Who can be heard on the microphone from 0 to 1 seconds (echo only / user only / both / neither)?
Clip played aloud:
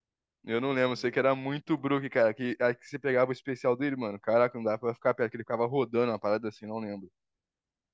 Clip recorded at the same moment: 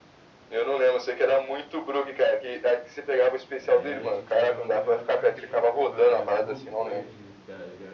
echo only